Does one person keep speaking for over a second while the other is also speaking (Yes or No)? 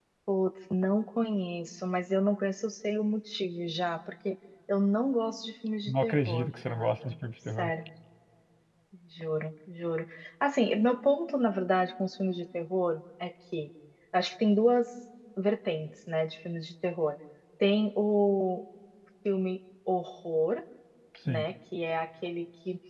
Yes